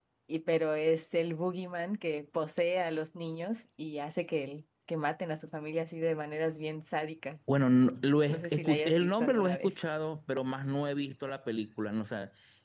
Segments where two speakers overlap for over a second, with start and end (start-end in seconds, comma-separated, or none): 8.3-9.7